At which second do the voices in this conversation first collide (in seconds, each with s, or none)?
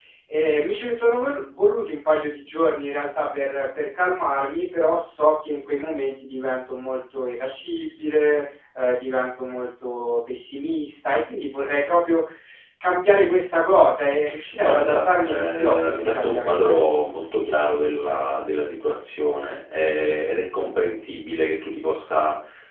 14.6 s